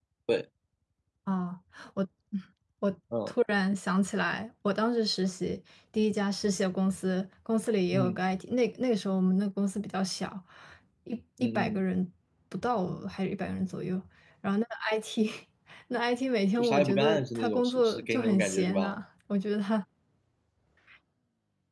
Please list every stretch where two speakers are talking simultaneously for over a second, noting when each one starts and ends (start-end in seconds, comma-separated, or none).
16.6-18.9